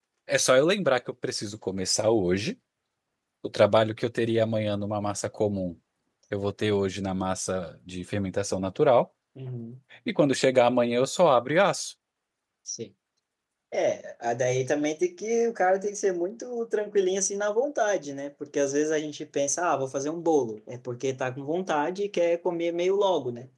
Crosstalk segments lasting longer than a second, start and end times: none

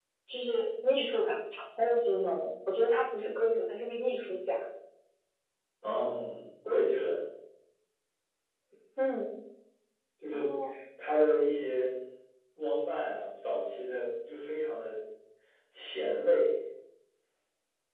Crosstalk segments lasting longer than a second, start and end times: none

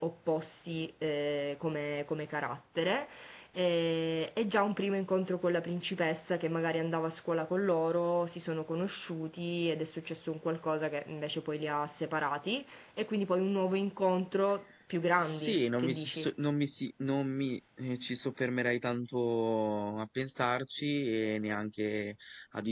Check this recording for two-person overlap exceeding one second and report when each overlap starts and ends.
15.0-16.2

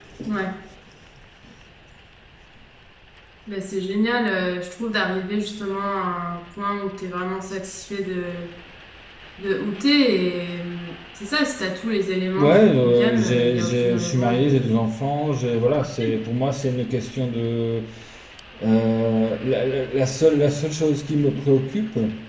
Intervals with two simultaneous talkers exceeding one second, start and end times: 12.4-14.7

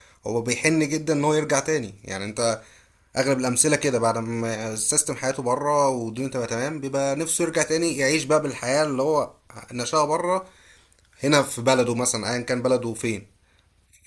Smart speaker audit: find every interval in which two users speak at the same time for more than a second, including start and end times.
none

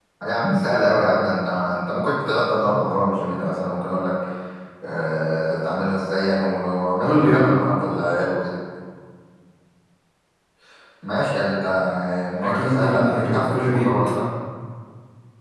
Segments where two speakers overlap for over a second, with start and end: 12.4-13.9

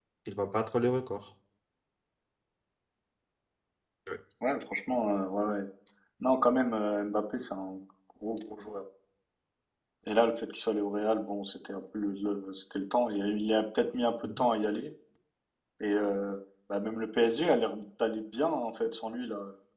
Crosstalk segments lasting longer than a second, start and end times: none

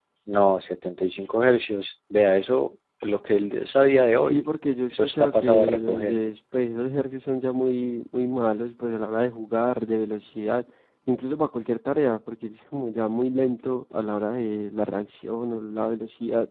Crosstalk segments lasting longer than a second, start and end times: 4.9-6.2

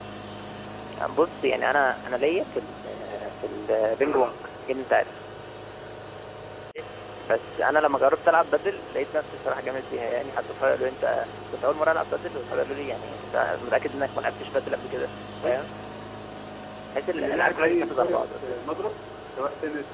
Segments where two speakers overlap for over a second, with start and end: 17.2-18.6

